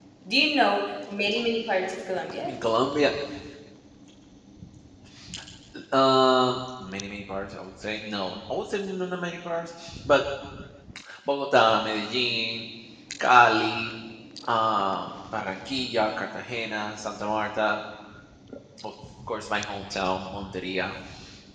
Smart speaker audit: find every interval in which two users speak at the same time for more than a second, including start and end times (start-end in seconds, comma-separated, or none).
none